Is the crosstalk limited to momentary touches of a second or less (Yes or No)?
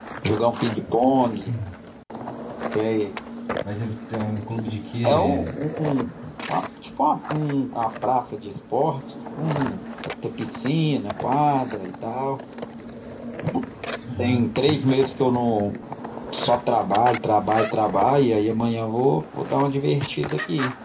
Yes